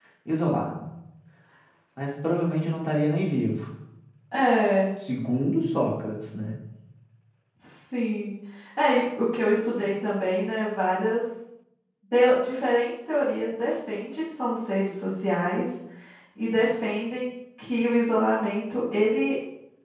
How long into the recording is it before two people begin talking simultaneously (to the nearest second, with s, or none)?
none